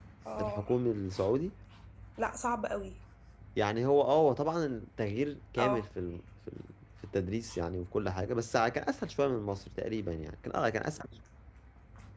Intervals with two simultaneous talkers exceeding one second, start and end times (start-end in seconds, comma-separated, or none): none